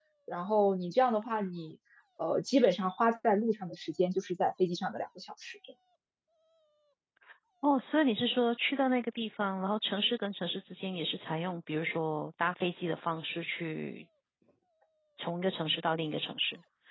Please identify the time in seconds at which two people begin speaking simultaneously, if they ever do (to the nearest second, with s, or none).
none